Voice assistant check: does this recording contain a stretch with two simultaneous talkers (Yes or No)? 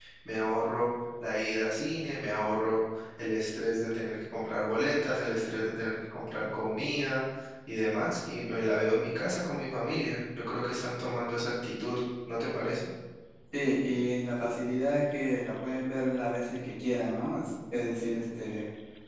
No